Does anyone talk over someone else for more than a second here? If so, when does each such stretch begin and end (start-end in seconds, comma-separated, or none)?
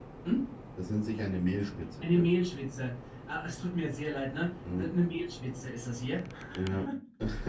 none